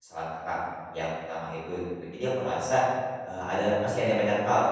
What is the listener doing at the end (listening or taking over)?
listening